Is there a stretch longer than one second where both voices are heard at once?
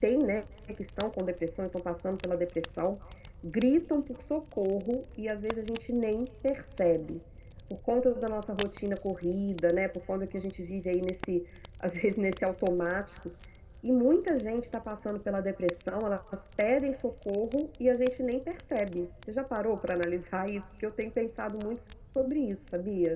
No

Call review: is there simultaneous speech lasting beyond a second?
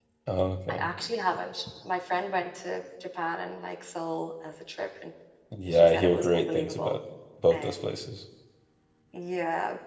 Yes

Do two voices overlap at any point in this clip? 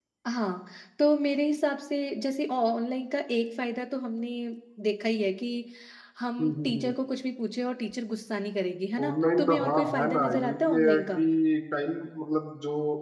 Yes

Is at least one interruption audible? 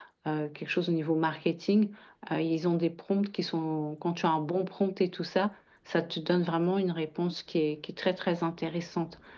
No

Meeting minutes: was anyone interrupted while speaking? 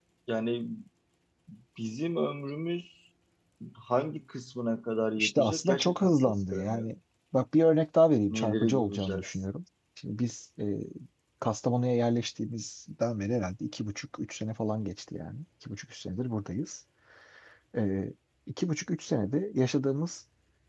Yes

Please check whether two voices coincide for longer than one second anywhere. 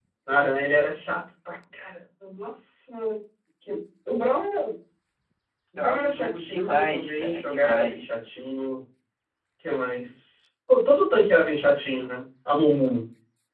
Yes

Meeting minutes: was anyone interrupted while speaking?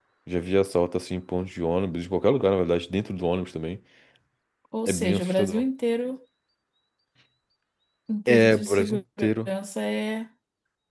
Yes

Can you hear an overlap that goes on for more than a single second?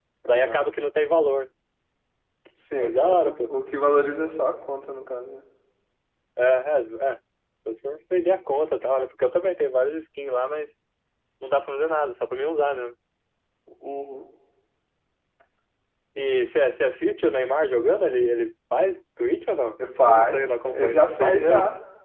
Yes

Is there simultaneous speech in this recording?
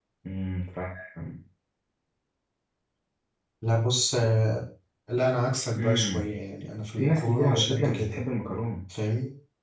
Yes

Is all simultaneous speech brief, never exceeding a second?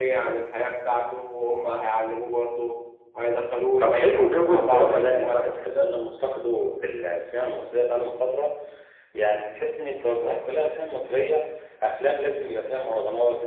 No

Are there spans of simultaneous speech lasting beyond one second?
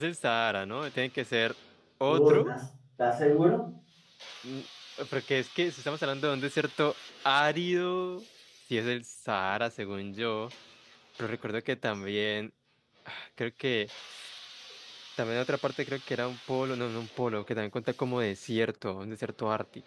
No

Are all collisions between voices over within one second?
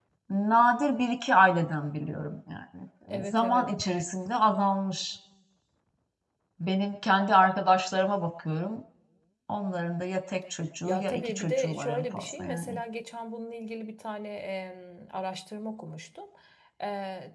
No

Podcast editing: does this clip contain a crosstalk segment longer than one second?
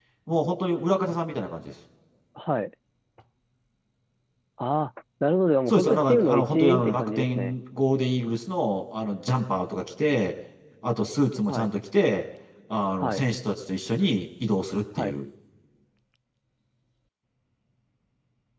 Yes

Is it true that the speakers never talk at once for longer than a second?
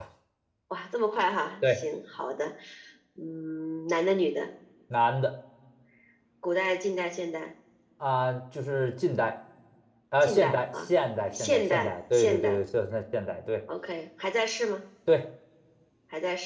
No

